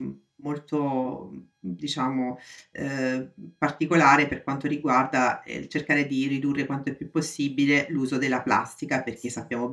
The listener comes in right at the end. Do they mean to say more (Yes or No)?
No